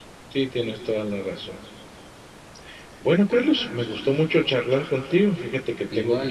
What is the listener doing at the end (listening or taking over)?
listening